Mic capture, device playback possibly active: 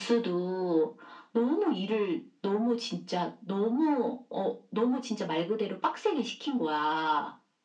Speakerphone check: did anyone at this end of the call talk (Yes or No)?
No